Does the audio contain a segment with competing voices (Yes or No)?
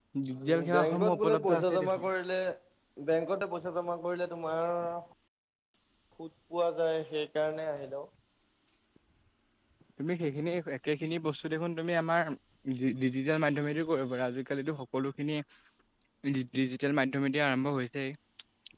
Yes